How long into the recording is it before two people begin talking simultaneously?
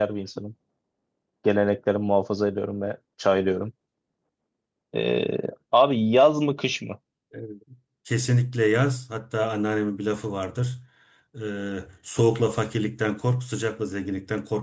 none

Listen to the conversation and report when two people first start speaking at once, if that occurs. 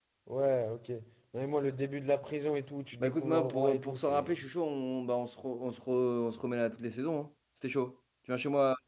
3 s

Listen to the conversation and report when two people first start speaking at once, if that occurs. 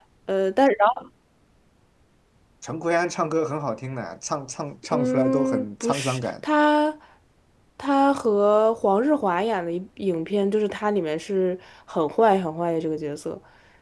5 s

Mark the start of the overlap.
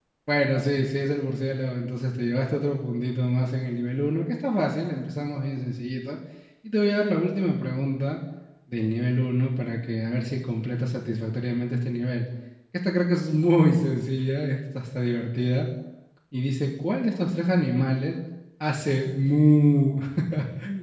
none

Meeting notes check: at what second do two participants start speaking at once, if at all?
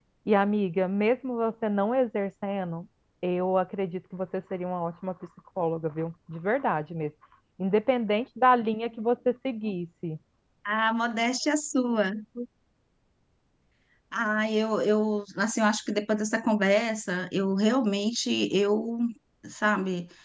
none

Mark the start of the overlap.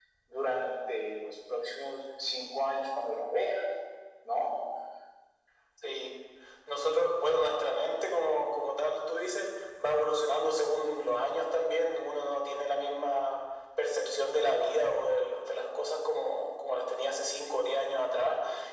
none

